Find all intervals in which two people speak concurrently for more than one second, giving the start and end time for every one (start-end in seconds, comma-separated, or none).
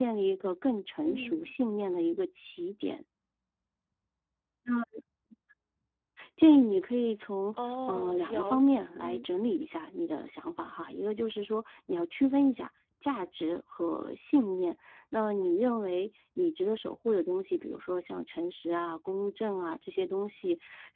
7.9-9.2